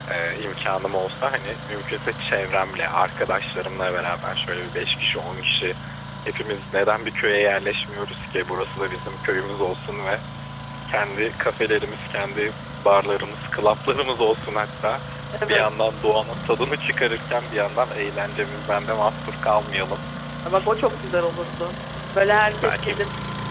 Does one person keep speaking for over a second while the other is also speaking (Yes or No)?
No